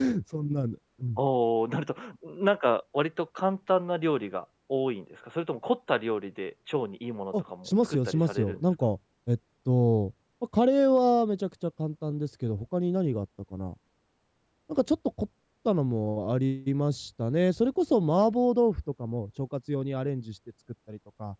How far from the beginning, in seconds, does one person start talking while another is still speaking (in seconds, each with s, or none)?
7.3 s